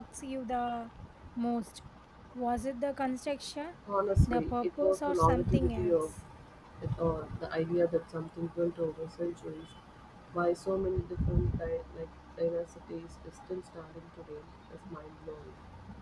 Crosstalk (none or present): present